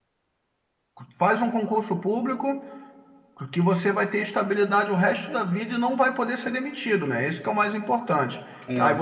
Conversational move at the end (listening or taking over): listening